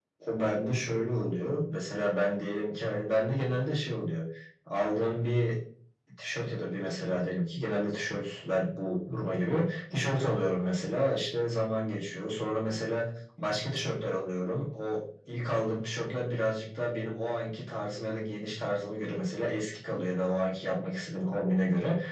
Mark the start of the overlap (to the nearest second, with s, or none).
none